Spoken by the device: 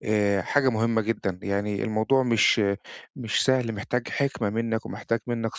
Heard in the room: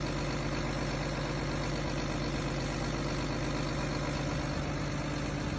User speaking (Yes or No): No